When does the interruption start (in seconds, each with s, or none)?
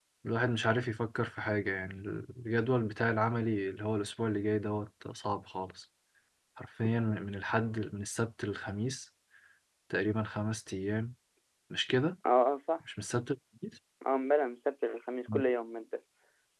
none